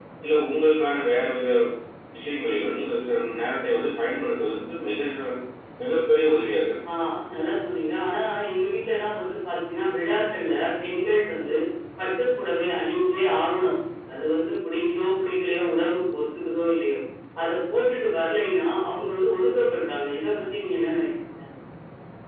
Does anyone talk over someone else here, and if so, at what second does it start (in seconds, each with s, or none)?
none